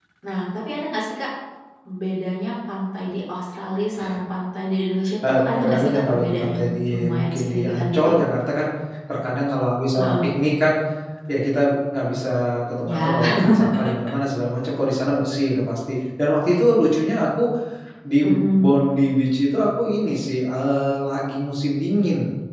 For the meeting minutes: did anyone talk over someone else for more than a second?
Yes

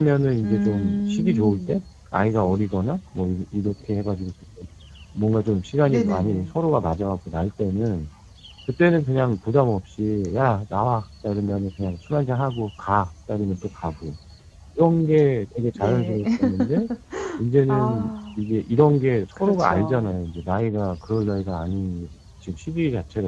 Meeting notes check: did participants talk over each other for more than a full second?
Yes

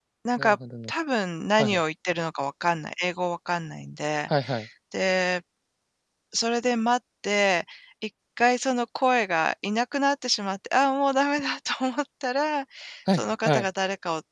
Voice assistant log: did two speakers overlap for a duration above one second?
No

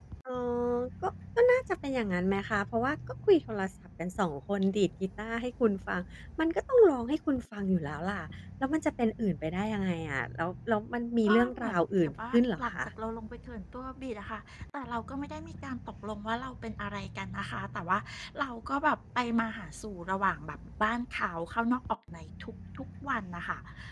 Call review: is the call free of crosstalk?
No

